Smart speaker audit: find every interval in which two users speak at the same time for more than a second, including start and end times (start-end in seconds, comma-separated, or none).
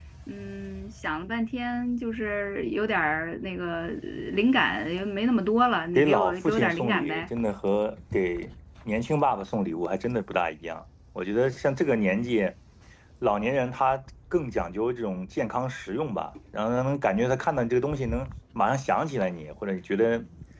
5.9-7.3